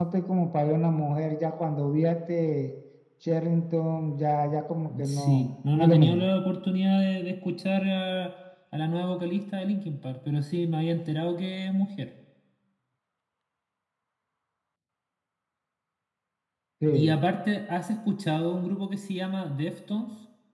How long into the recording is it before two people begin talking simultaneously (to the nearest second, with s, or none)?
5 s